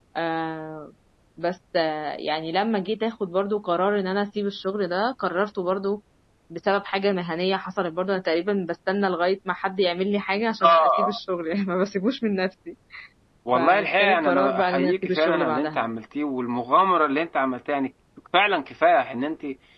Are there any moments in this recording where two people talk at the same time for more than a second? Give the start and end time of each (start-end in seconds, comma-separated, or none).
13.5-15.9